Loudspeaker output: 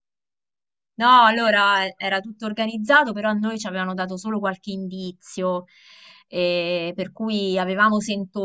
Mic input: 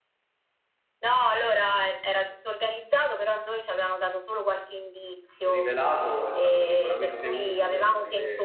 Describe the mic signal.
both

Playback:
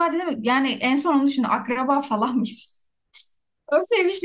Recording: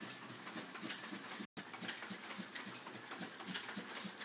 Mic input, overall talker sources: neither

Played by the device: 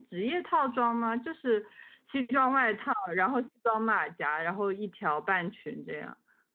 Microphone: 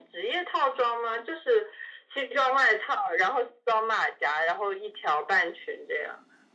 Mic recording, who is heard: echo only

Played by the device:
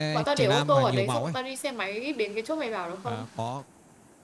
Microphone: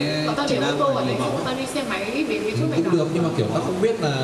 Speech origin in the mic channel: both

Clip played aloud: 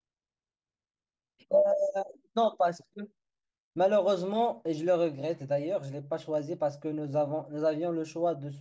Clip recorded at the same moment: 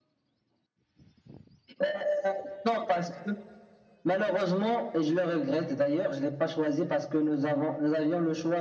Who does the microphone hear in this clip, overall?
echo only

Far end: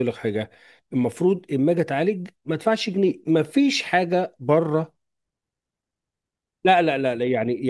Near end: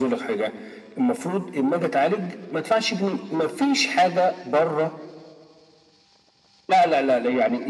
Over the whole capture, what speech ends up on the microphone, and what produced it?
echo only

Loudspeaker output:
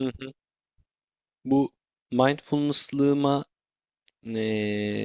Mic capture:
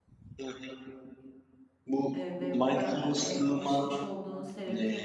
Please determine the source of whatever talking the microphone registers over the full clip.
both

